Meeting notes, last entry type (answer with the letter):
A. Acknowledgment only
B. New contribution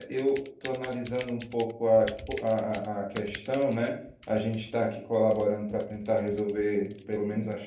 A